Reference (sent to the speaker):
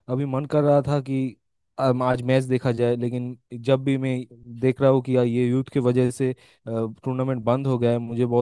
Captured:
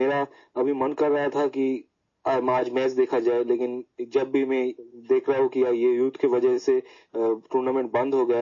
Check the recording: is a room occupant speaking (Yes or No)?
No